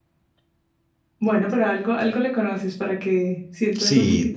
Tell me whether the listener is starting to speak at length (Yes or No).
Yes